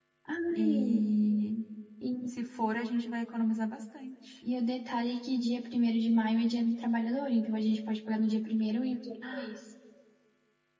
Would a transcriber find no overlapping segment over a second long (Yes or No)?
Yes